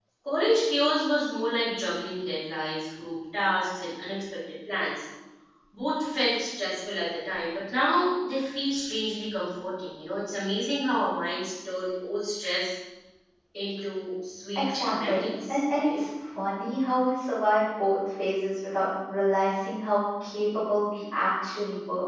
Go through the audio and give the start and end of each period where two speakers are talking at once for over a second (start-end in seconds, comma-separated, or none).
14.6-16.0